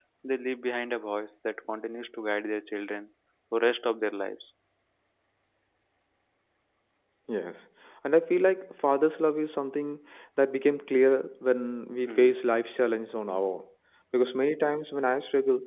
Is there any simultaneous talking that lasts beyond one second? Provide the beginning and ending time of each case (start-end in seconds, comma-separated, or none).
none